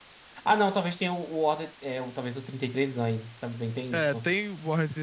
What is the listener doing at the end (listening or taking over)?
taking over